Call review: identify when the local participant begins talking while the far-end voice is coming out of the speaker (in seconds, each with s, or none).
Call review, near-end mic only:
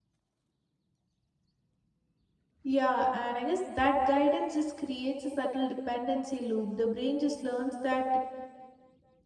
2.6 s